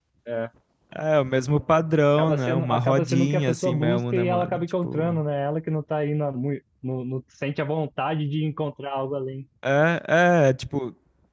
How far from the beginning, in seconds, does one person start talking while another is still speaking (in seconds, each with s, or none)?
2.2 s